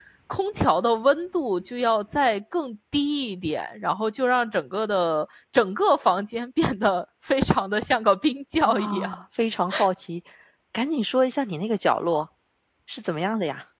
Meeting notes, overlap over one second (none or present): none